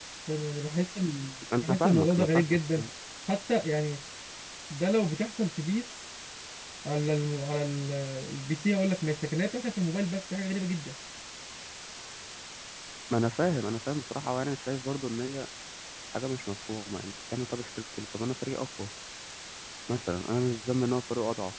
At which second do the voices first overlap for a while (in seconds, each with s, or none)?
1.4 s